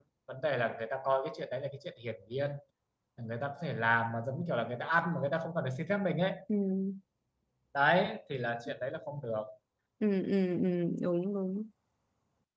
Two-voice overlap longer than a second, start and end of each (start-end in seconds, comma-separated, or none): none